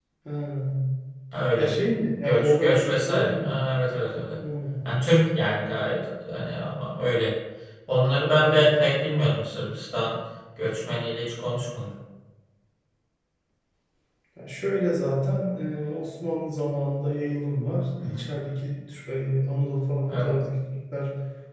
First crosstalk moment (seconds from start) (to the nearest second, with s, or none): 2 s